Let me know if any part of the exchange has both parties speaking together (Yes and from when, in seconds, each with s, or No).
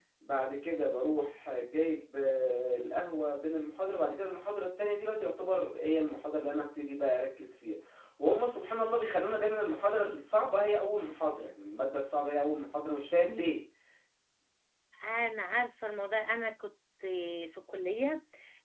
No